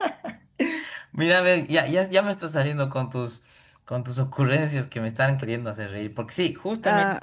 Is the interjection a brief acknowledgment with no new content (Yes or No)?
No